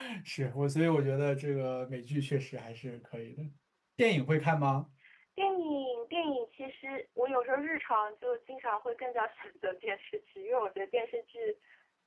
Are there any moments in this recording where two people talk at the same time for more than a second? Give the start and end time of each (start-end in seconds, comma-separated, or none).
none